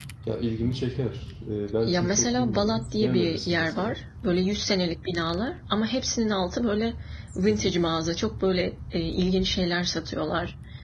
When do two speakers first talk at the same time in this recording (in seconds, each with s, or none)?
1.8 s